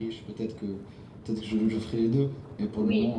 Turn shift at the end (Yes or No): No